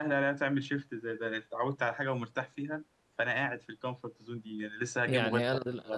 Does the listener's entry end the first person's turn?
Yes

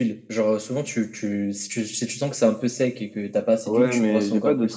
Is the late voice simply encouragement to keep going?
No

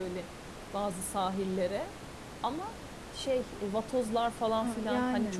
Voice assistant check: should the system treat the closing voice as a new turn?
Yes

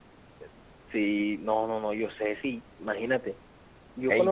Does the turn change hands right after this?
No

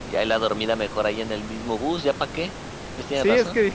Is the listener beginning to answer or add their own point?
Yes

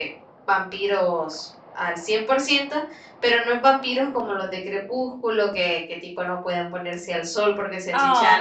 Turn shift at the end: Yes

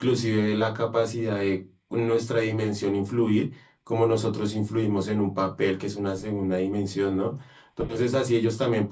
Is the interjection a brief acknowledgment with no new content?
Yes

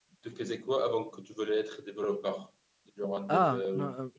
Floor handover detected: Yes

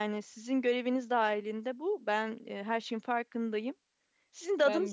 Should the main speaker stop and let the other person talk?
No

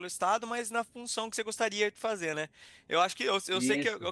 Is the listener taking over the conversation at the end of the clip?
No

